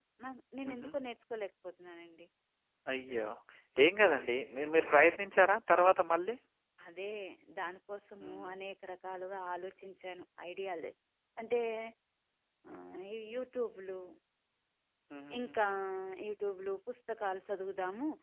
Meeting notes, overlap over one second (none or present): none